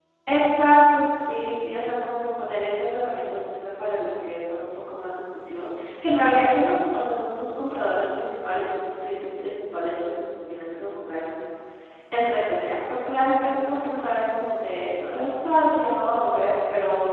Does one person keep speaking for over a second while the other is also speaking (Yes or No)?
No